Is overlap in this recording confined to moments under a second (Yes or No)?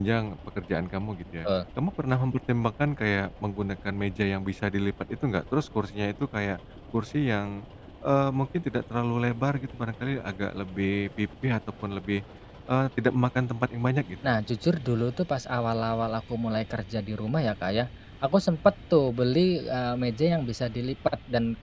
Yes